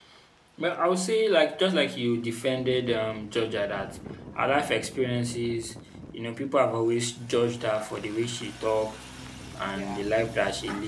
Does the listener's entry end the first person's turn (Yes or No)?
No